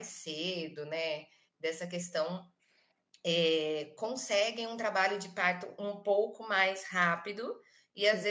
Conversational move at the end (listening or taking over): listening